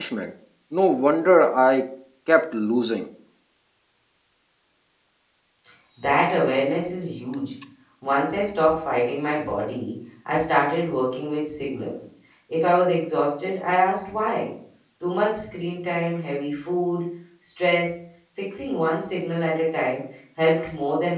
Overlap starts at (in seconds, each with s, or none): none